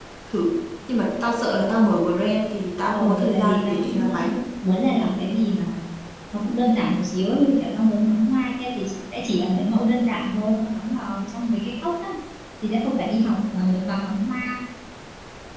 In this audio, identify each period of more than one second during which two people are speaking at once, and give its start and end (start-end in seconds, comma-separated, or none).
2.9-4.2